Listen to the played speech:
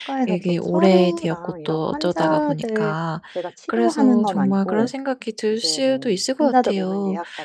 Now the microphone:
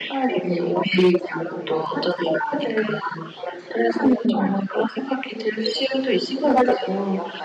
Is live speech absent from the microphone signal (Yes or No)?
Yes